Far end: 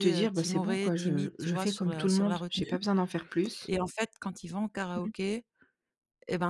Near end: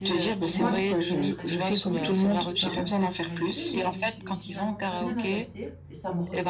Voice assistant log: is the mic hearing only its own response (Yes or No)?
No